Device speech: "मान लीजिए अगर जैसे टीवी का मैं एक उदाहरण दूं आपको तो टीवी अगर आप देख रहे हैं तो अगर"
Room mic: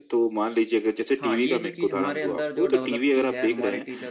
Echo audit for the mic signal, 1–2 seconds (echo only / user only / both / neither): both